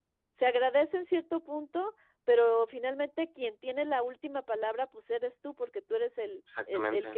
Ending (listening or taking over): listening